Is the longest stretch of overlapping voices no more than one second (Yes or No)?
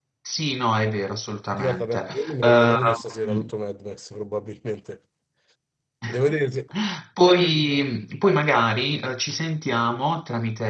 No